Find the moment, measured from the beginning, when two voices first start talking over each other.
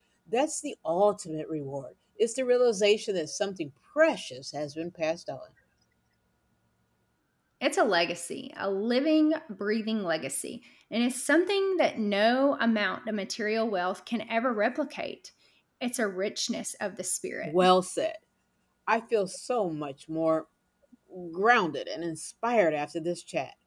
none

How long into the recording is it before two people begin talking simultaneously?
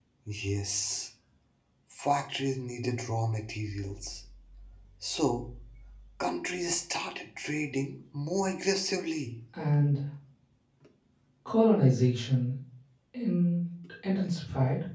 none

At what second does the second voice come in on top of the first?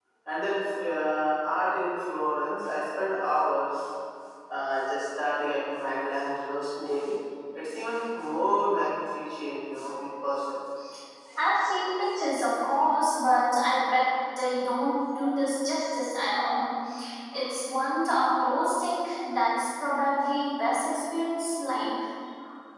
none

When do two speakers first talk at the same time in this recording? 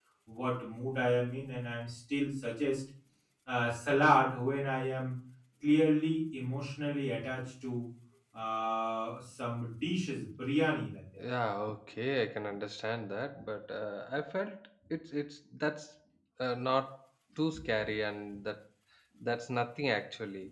none

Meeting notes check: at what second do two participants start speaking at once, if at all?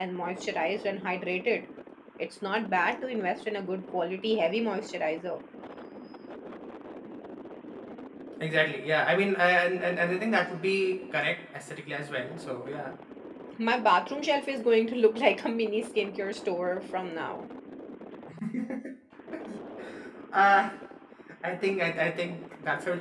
none

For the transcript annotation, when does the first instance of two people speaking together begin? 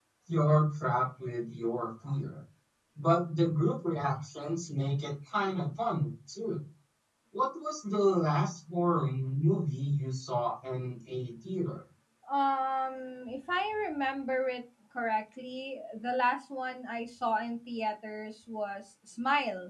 none

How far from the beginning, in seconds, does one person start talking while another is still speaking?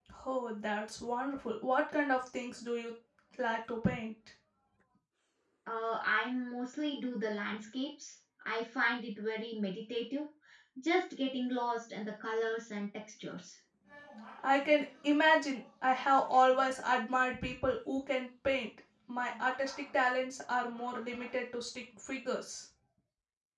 none

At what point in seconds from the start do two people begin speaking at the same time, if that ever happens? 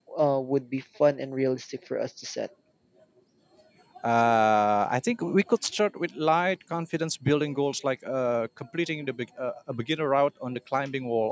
none

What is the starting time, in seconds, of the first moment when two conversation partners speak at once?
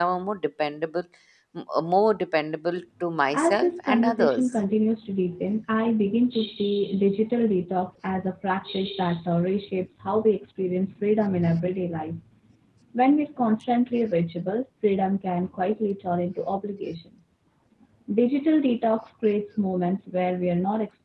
3.3 s

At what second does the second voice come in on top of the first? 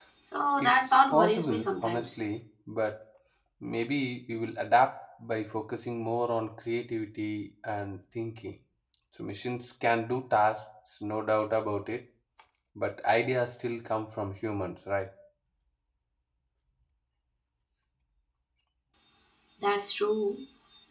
0.6 s

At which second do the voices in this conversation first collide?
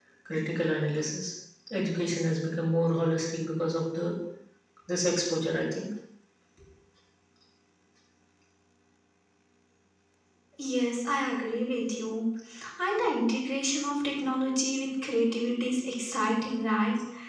none

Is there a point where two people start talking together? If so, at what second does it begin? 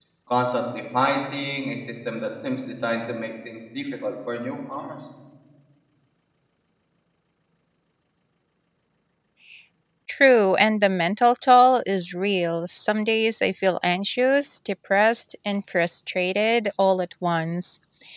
none

